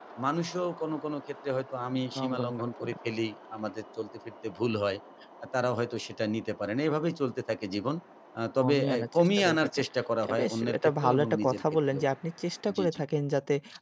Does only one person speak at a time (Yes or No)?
No